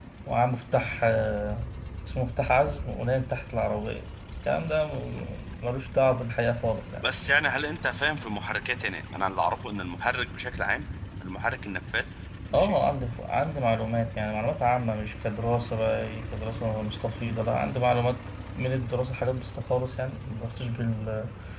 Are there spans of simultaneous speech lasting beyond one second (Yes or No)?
No